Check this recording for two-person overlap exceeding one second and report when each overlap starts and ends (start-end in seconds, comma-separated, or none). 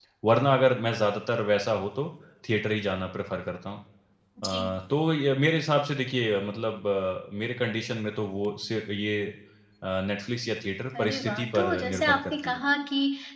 11.0-12.6